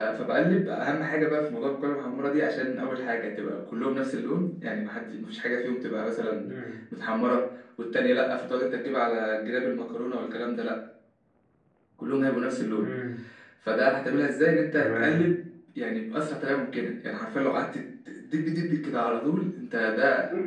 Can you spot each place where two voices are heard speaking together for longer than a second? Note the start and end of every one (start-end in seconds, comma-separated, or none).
none